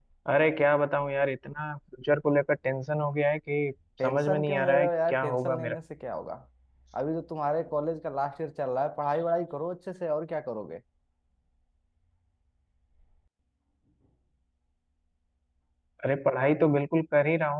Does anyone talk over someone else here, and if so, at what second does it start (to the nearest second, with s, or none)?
4 s